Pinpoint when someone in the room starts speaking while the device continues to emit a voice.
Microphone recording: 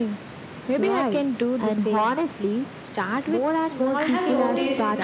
4 s

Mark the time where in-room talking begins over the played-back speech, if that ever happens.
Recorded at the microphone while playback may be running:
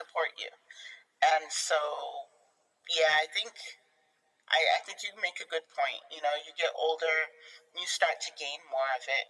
none

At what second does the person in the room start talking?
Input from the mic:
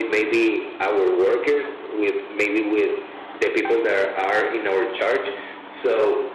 none

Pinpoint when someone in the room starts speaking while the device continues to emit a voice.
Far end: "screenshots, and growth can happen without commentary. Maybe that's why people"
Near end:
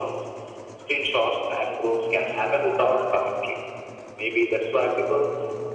none

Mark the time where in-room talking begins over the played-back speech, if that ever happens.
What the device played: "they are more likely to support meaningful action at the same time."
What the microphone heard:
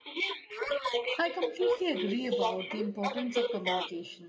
1 s

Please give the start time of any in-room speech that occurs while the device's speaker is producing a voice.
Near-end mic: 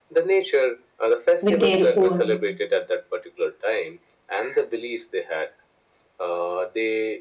1 s

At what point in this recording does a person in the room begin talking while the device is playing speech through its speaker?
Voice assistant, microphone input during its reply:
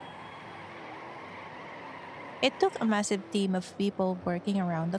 2 s

